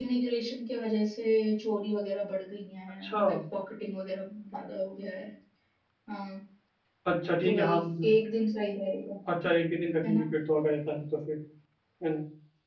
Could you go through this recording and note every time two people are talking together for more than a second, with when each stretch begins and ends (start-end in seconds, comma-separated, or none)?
none